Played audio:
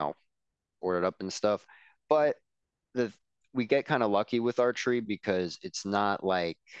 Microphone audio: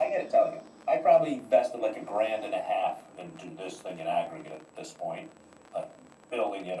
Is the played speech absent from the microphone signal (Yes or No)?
Yes